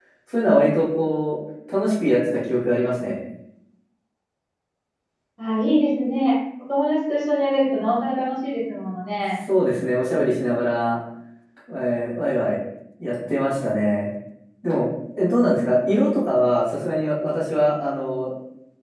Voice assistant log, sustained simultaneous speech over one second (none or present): none